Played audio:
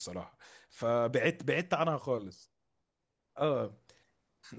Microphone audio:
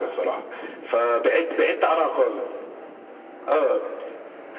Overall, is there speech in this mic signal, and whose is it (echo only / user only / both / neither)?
echo only